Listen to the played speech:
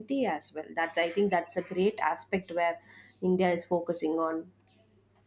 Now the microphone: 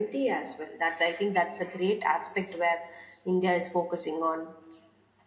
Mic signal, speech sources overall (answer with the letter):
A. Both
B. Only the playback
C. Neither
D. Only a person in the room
B